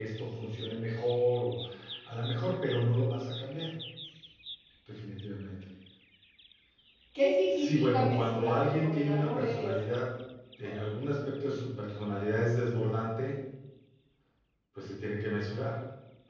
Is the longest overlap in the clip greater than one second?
Yes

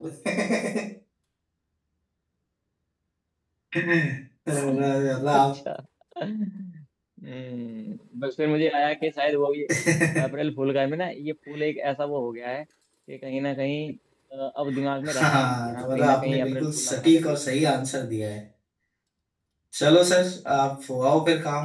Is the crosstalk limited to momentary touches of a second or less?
No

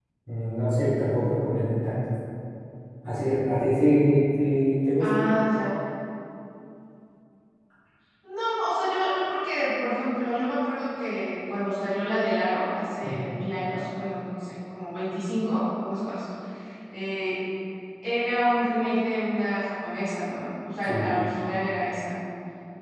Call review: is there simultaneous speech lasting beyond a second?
No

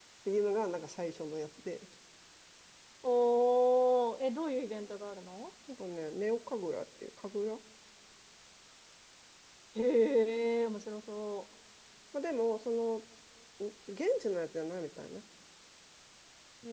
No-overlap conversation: Yes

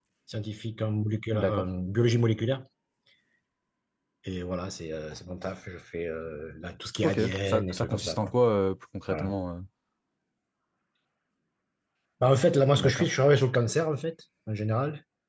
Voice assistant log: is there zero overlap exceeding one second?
No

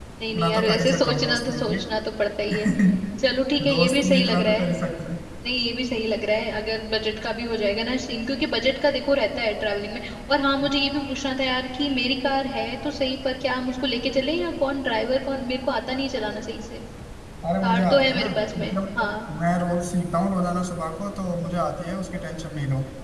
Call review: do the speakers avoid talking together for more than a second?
No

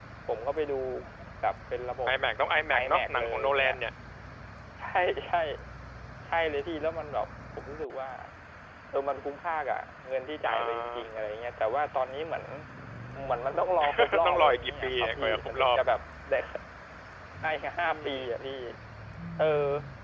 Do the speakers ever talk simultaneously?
Yes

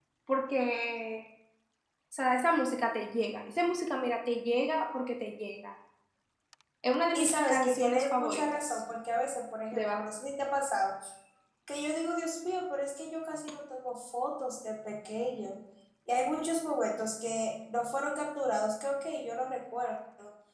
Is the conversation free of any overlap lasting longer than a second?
No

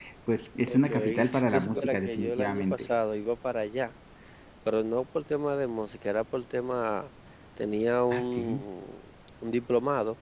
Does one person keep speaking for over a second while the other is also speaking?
Yes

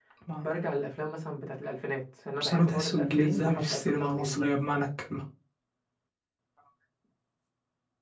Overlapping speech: Yes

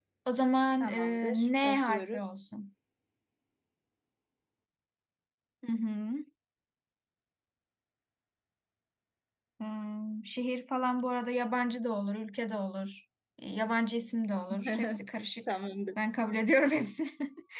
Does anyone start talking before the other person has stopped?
Yes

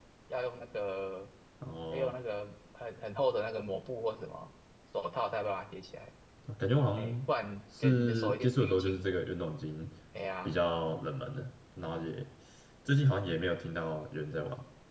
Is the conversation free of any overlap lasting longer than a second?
No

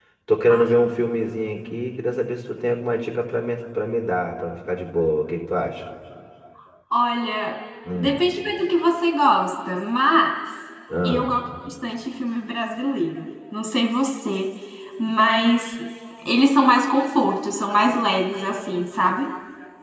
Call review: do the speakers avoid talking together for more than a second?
Yes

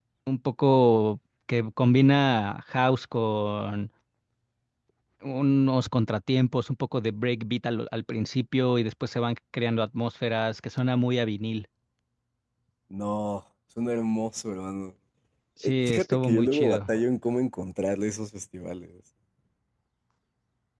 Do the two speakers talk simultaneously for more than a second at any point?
Yes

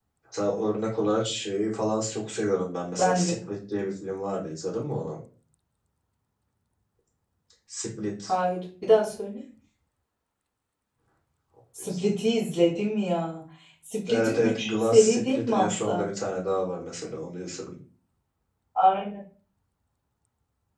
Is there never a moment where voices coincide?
No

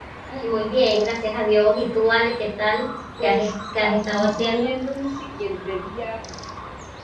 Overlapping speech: Yes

